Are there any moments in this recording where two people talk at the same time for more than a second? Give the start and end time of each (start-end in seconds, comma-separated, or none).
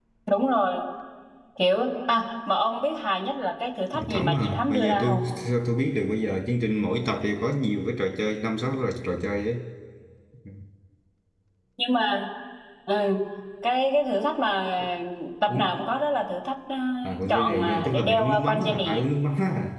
3.9-5.2, 17.3-19.0